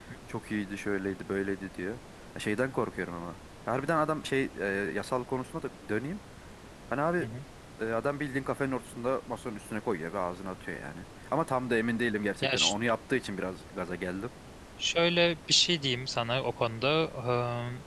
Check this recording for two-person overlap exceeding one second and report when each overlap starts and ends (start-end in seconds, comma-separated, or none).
none